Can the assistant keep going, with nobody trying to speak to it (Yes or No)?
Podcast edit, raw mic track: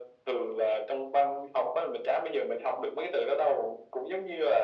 Yes